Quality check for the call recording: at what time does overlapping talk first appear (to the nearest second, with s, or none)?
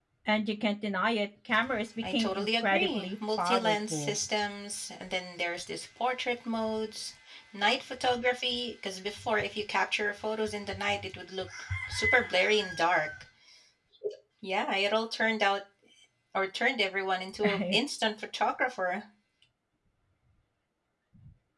2 s